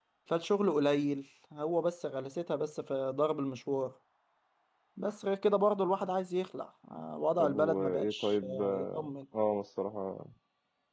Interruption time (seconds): 7 s

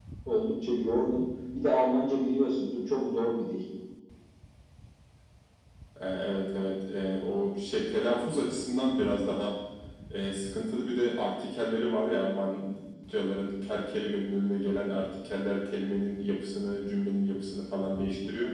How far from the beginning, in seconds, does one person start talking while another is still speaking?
none

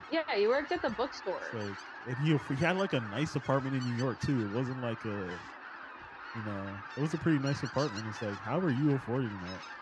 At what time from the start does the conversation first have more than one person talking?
none

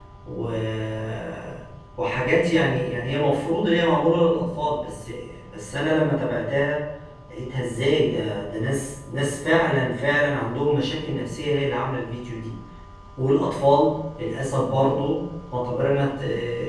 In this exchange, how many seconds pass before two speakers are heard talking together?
none

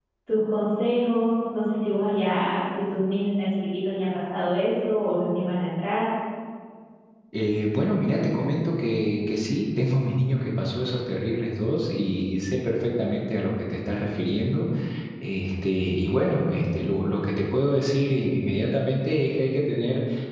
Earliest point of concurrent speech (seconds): none

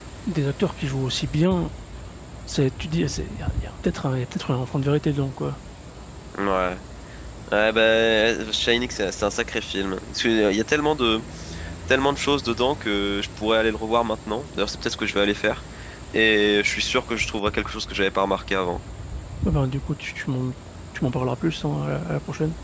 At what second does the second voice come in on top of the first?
none

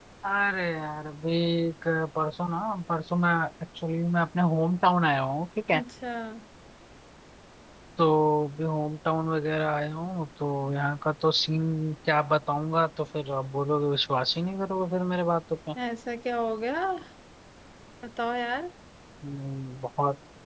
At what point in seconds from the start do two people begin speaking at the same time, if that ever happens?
none

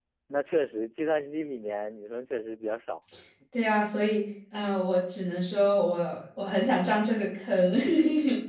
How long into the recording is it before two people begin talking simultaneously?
none

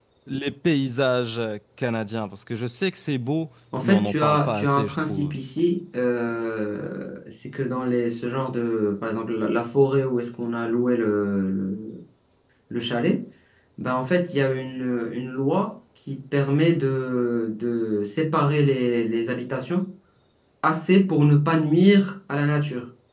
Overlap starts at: 4 s

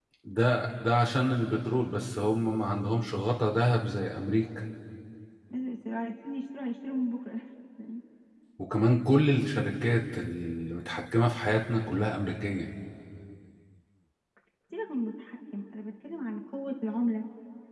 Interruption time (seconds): none

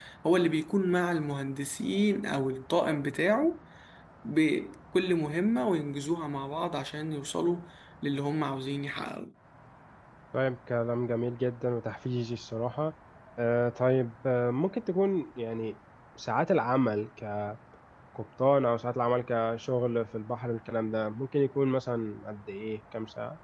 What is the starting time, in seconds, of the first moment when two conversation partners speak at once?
none

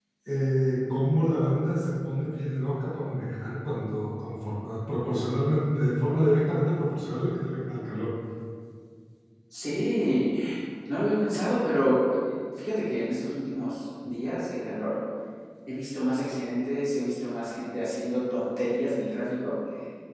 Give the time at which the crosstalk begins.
none

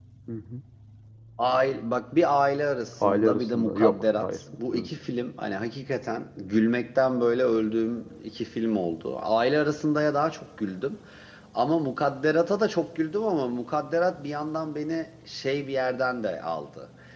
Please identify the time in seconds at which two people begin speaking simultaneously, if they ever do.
3 s

